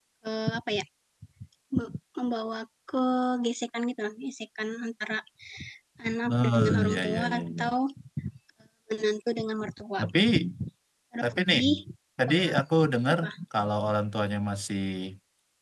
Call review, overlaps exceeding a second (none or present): present